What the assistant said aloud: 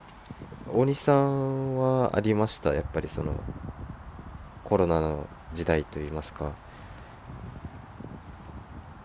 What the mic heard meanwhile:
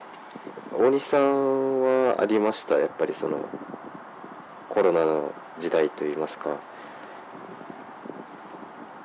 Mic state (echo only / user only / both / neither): echo only